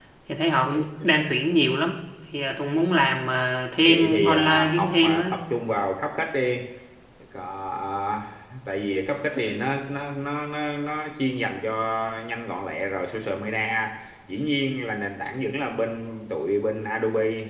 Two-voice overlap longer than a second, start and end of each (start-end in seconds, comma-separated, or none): 3.9-5.3